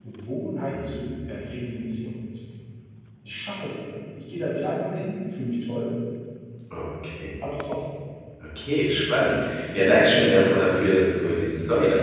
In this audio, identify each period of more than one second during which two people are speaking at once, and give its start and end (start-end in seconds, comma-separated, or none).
9.2-10.5